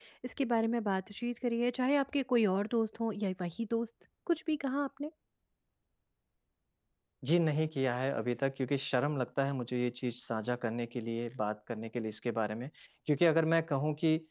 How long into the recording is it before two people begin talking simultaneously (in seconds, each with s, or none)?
none